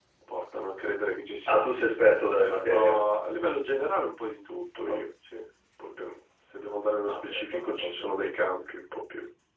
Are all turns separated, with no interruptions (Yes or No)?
No